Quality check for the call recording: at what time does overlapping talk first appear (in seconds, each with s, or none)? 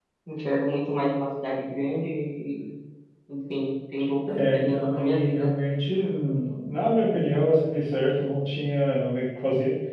4.3 s